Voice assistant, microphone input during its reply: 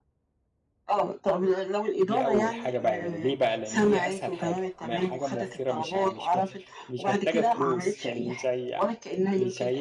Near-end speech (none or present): present